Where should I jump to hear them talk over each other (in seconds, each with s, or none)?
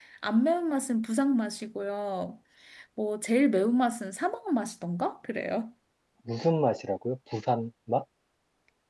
none